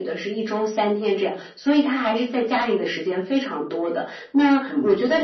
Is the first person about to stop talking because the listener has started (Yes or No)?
No